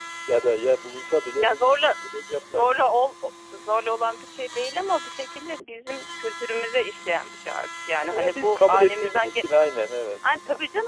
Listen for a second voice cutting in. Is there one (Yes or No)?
Yes